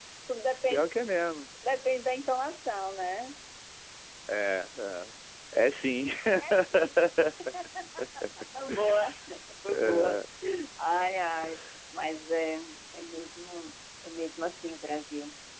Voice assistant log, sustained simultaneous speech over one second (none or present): none